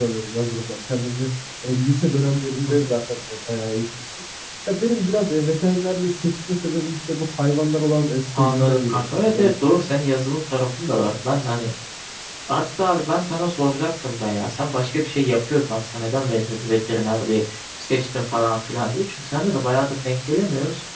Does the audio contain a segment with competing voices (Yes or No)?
Yes